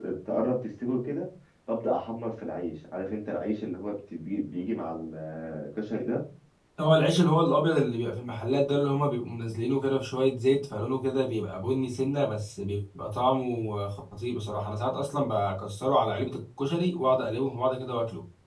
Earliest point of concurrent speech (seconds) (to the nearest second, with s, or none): none